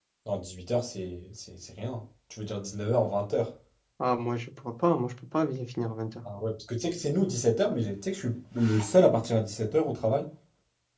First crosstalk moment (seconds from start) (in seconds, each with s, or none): none